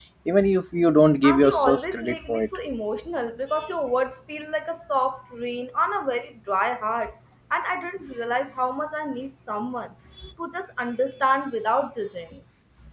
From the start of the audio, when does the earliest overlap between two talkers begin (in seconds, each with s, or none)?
1.2 s